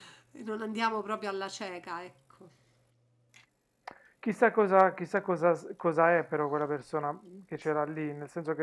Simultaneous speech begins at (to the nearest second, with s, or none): none